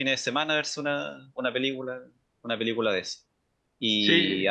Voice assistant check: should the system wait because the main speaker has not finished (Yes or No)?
Yes